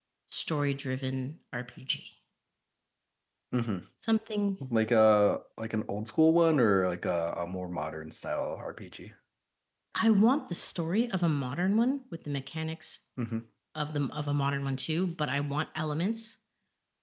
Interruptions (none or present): none